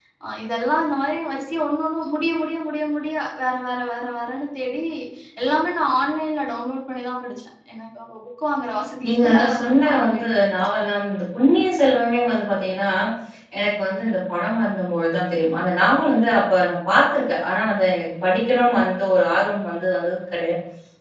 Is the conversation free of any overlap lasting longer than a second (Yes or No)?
No